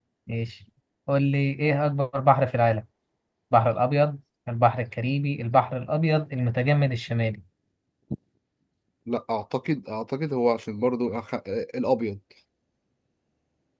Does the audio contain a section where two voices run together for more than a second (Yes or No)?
No